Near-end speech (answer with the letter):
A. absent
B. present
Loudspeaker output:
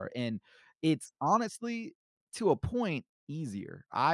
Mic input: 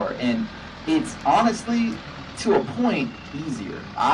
A